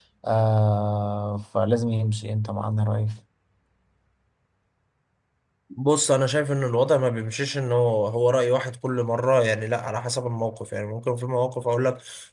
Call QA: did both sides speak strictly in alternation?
Yes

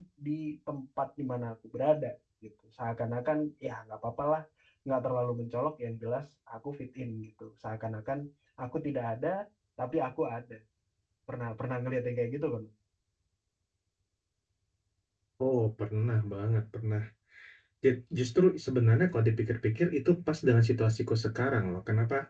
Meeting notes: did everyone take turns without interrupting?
Yes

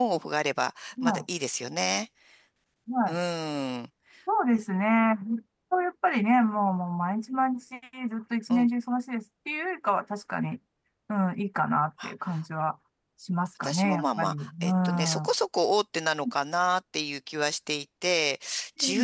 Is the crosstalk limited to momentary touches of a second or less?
No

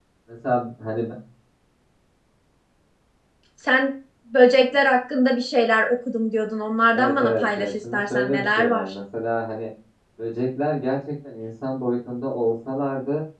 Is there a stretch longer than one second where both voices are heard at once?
Yes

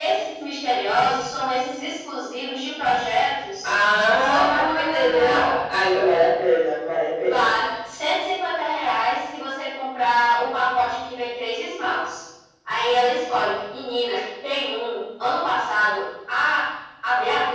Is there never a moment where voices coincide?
No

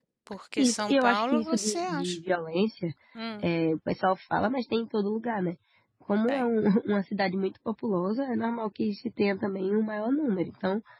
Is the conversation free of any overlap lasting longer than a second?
No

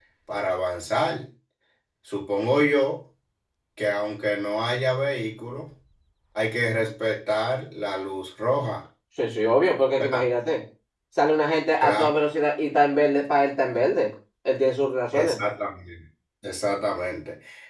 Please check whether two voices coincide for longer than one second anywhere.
No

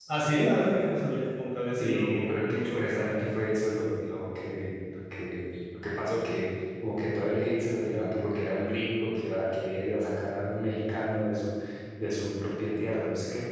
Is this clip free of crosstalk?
No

